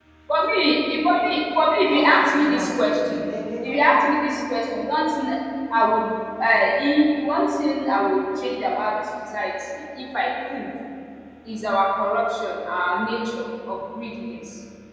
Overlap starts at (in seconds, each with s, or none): 1.9 s